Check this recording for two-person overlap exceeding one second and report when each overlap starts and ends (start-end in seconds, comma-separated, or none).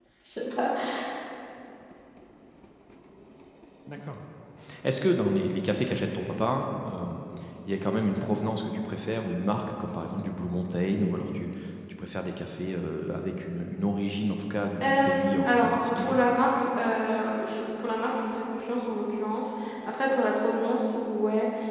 14.8-16.2